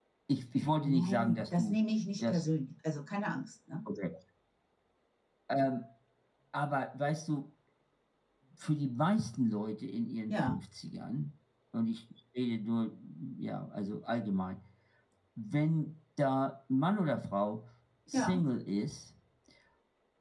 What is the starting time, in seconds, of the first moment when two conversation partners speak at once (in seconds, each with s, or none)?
0.8 s